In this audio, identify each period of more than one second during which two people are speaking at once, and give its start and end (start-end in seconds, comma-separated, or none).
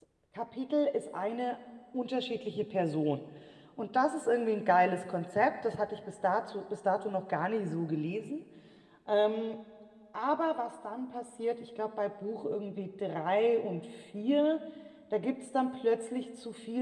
none